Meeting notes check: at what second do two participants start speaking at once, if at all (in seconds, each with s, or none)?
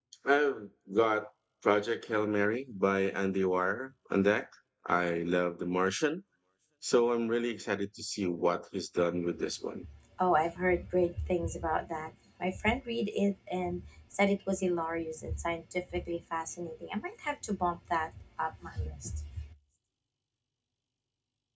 none